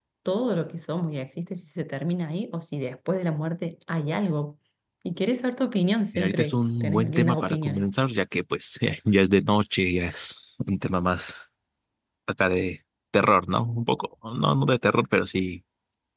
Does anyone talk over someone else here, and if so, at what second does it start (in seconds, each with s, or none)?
6.1 s